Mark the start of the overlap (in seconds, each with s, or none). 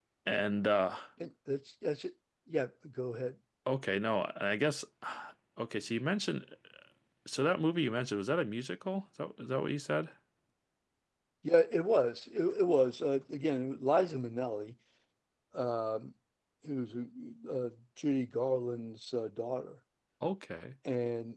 none